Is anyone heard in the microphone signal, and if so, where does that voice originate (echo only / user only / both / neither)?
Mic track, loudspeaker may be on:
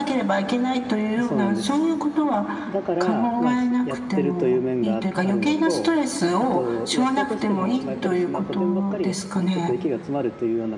both